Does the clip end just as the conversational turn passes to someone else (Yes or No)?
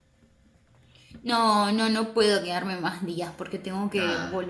No